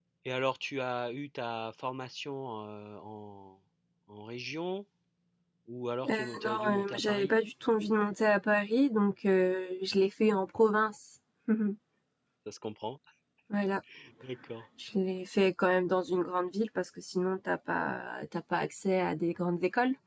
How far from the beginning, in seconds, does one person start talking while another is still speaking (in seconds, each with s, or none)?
6.1 s